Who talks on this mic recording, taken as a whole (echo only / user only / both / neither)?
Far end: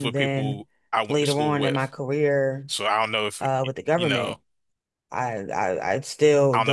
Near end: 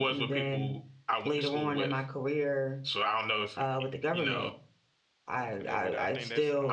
both